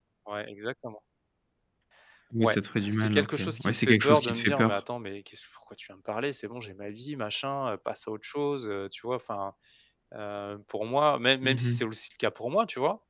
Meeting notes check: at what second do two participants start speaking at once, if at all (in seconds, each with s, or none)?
2.4 s